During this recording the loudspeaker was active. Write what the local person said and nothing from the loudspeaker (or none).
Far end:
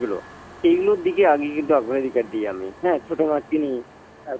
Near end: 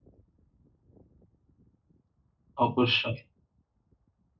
অবশ্যই।